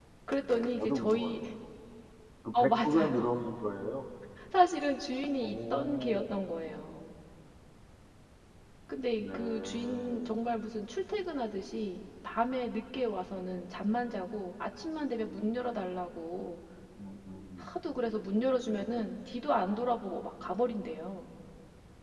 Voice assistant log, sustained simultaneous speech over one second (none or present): present